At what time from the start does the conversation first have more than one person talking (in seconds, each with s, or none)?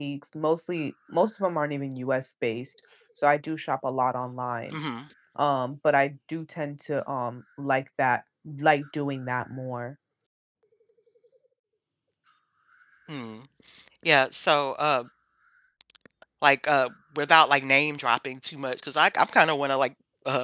none